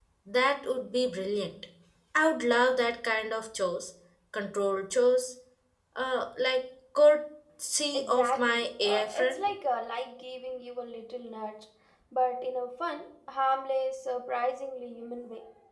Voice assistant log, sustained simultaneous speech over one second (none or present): present